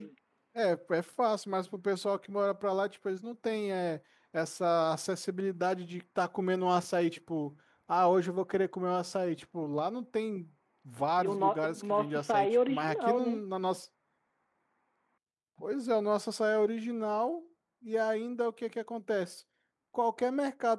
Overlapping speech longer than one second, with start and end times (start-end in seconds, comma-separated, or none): 11.2-13.4